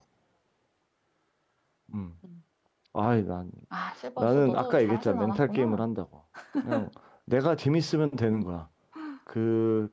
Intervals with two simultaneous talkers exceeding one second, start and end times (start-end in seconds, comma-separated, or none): 4.2-5.9